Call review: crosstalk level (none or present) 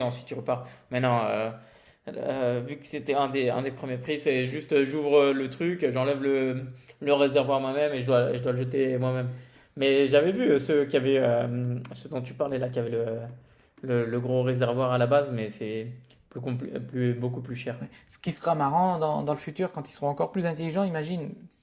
none